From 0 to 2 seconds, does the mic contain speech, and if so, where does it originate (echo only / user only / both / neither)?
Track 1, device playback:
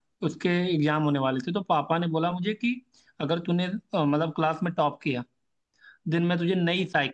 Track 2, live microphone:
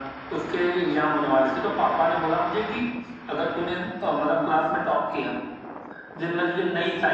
echo only